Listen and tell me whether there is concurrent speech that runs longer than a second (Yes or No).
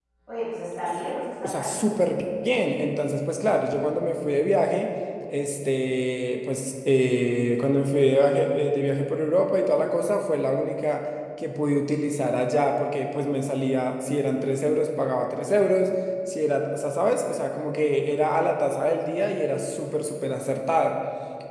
No